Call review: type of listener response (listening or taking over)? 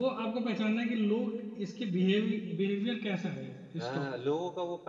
taking over